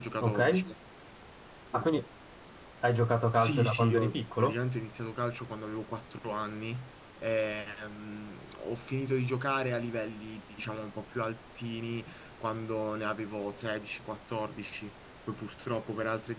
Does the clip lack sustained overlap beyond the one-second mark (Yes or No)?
No